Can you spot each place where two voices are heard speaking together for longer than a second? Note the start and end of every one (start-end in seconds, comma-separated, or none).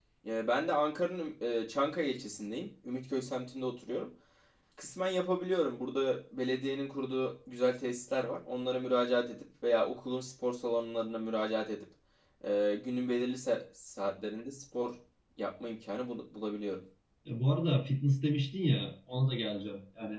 none